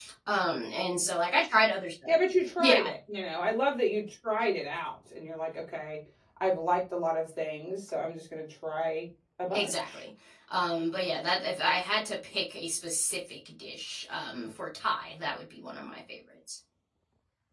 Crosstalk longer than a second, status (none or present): none